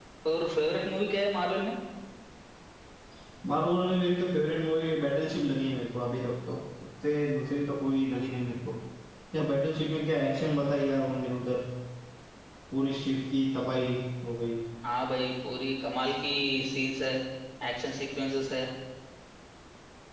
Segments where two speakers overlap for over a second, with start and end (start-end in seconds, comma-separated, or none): none